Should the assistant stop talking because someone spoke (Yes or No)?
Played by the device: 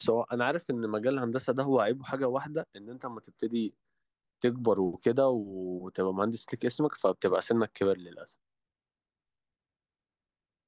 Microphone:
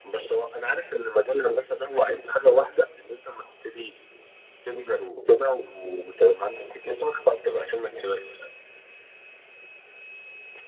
No